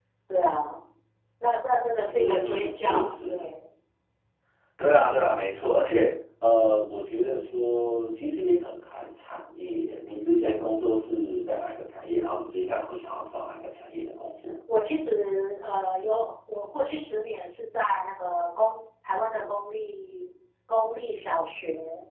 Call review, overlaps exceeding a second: present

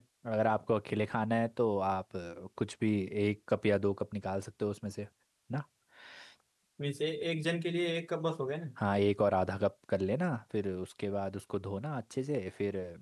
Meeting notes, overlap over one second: none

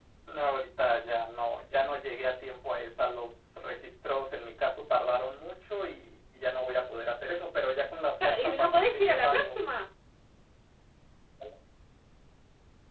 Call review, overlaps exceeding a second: present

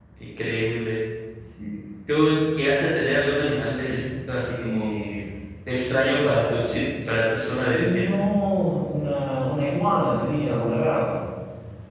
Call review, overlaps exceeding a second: none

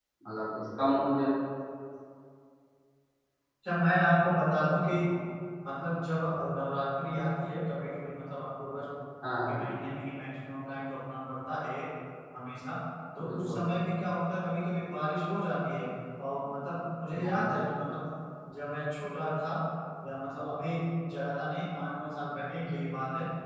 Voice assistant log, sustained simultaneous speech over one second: none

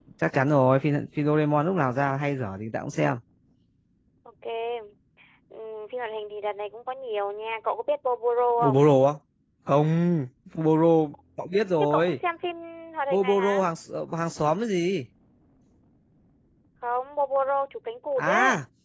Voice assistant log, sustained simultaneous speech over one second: none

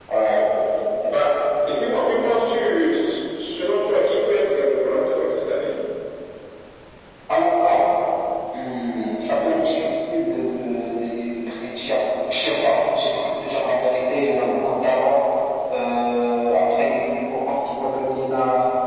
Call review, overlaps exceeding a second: none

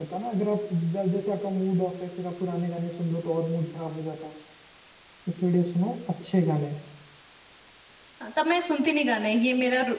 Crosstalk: none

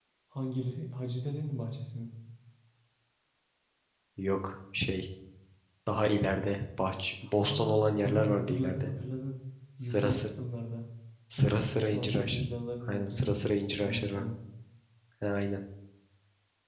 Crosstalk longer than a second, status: present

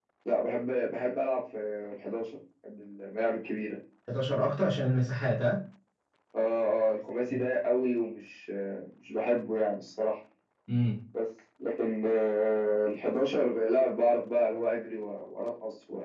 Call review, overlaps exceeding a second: none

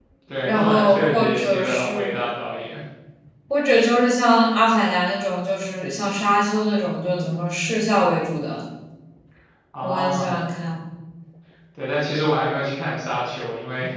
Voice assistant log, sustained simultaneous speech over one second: present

